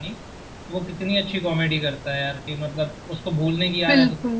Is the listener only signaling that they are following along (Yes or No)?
Yes